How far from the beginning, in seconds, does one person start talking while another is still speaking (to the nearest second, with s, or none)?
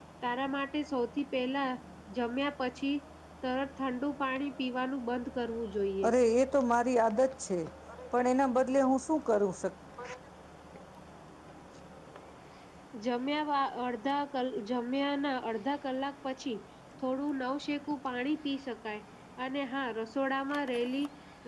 none